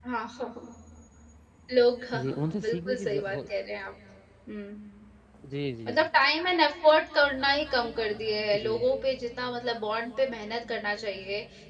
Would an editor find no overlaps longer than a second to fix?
No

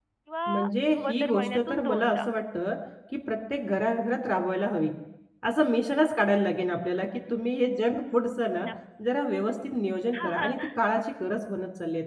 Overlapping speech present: Yes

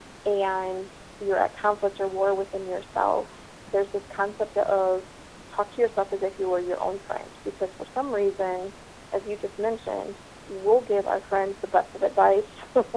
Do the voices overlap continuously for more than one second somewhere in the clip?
No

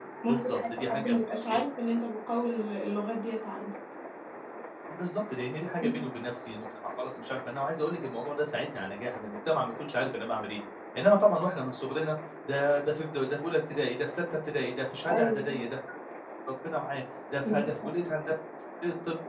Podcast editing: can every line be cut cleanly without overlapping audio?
No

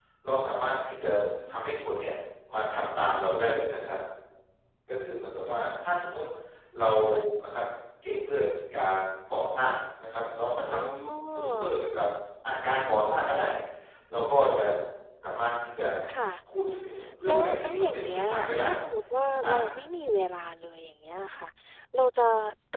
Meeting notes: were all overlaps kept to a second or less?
No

